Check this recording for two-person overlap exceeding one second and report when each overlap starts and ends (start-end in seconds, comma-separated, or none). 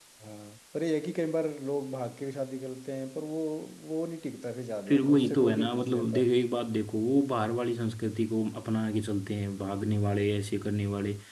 4.9-6.2